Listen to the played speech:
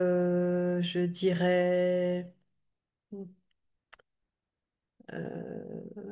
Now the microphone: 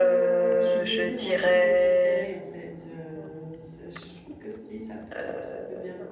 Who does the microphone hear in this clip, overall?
both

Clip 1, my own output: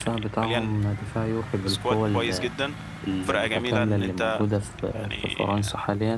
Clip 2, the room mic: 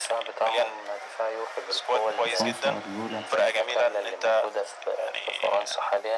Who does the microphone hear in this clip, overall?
both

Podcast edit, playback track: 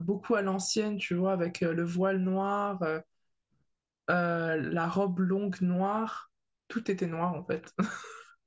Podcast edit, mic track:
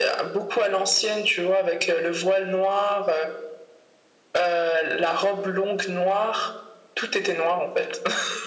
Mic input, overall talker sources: echo only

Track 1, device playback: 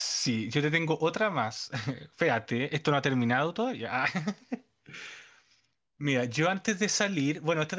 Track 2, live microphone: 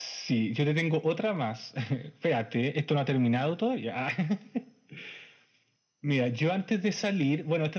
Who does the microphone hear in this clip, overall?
echo only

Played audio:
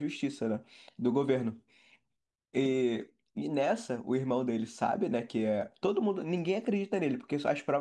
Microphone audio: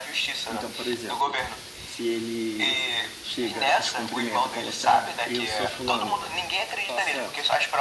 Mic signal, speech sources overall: both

